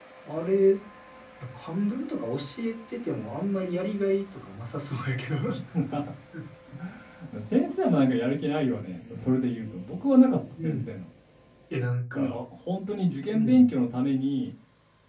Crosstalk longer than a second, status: none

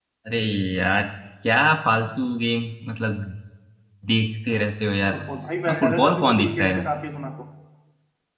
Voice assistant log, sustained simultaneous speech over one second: present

